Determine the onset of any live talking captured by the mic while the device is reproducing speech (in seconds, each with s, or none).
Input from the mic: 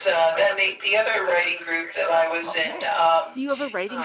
2.4 s